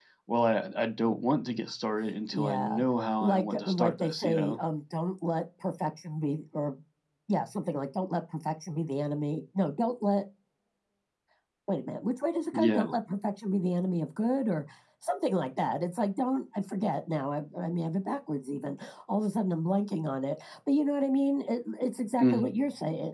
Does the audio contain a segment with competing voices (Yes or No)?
Yes